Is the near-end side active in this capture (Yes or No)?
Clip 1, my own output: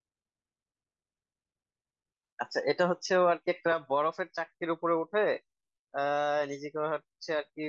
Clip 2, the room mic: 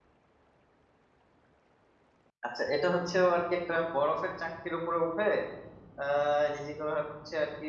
No